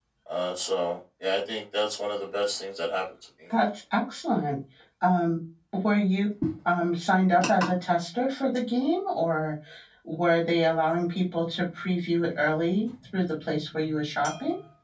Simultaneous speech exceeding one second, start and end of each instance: none

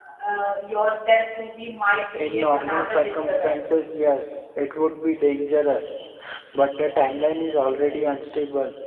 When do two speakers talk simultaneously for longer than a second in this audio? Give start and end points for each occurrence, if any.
2.1-3.8

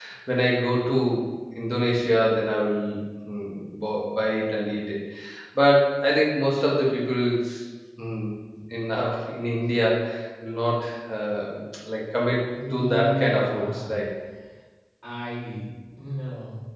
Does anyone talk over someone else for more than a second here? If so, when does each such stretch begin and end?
12.7-13.9

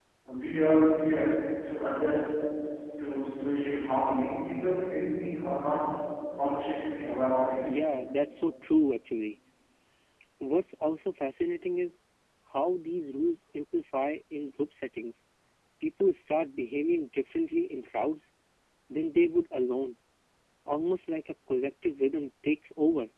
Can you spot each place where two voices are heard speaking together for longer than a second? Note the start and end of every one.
none

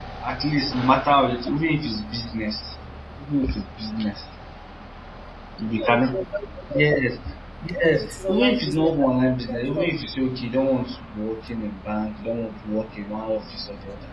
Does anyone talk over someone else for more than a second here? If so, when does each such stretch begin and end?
7.7-8.9

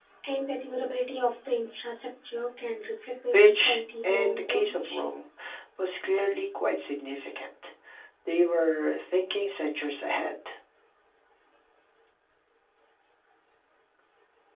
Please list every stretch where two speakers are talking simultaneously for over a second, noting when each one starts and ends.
3.3-5.1

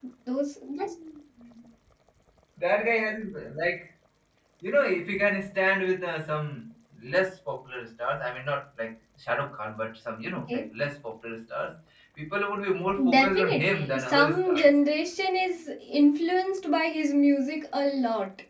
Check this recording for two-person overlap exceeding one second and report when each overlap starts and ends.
13.1-14.7

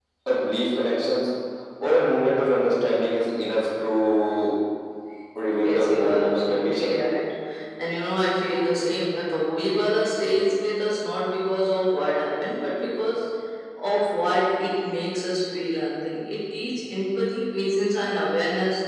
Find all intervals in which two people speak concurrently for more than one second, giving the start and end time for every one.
5.6-7.0

